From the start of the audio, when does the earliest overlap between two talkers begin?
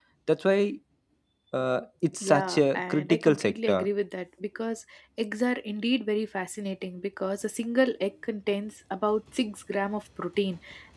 2.2 s

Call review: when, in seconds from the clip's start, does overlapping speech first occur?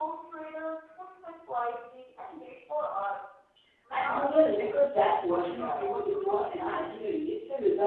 3.9 s

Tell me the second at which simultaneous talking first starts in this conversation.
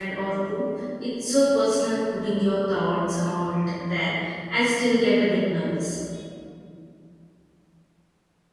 none

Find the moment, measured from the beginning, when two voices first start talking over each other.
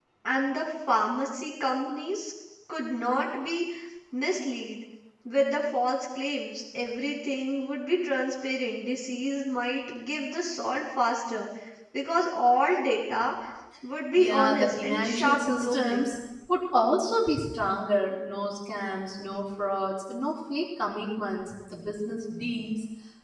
14.2 s

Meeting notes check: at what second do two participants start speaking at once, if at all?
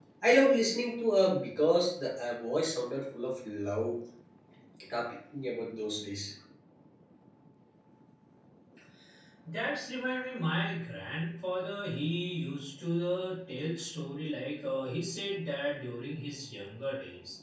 none

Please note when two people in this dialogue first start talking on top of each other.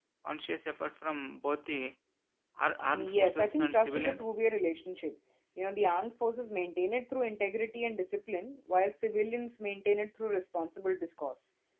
2.9 s

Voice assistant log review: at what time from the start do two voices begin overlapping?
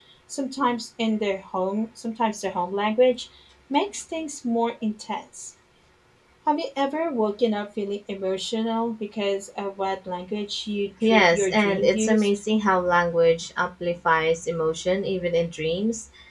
11.0 s

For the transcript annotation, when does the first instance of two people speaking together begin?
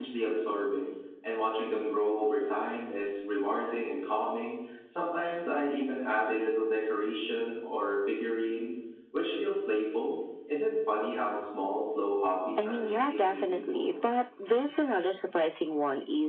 12.6 s

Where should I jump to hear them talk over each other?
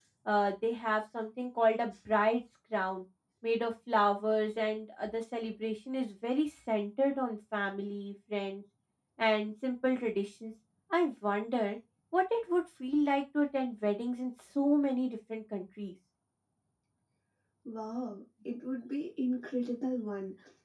none

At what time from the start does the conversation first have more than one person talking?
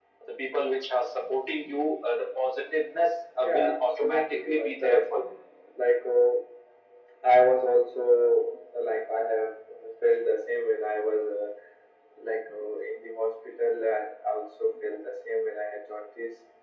3.4 s

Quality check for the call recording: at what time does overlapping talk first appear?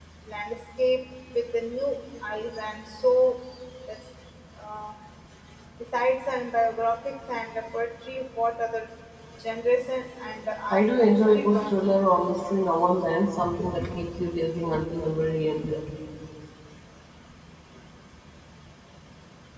10.7 s

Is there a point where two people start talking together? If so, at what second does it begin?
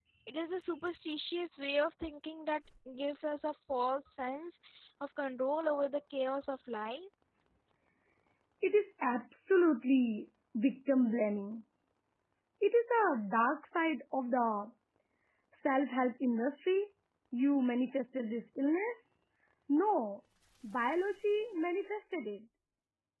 none

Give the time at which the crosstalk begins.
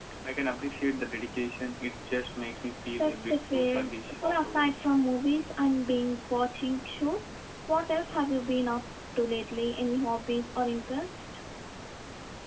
3.0 s

